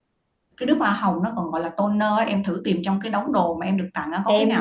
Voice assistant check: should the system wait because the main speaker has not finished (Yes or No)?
No